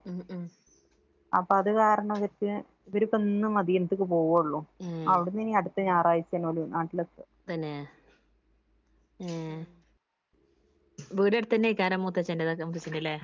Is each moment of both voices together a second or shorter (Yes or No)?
Yes